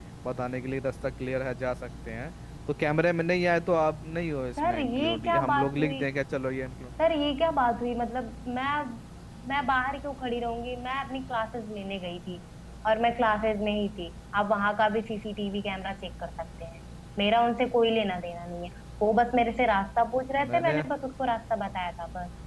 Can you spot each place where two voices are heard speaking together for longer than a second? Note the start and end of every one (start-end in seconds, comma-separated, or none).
4.6-6.0